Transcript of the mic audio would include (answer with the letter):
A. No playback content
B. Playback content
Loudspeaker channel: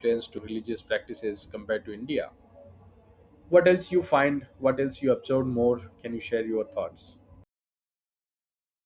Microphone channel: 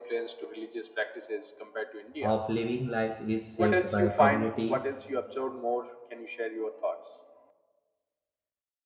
B